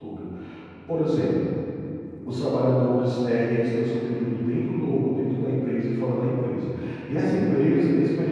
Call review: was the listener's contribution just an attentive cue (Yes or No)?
Yes